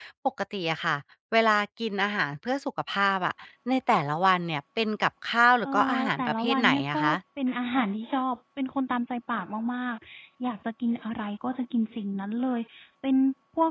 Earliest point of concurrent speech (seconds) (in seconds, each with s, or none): 5.6 s